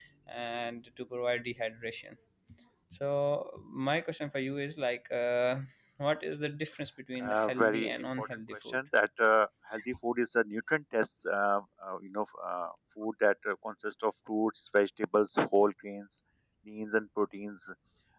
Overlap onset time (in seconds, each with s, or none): 7.2 s